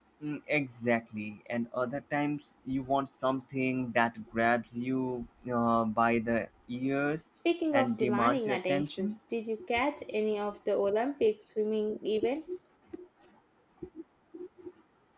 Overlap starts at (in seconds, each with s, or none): 7.7 s